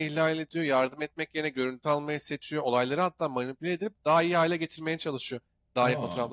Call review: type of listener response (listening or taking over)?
listening